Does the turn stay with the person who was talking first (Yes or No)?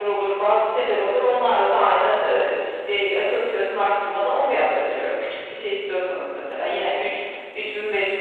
Yes